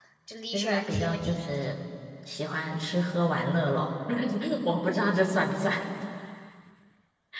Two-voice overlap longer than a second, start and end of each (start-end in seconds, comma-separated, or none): 0.5-1.8